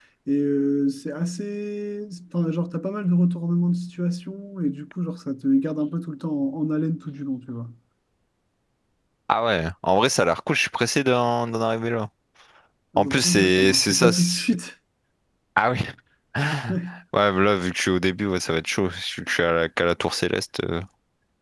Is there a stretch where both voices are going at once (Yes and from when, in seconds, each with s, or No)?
Yes, from 13.0 s